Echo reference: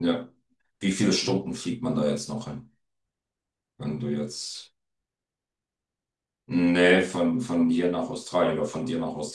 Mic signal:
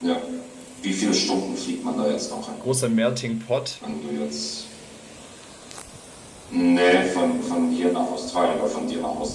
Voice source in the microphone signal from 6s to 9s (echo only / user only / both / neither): echo only